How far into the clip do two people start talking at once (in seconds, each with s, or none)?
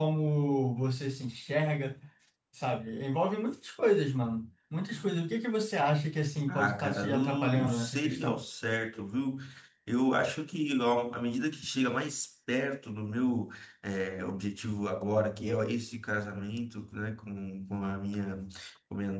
6.5 s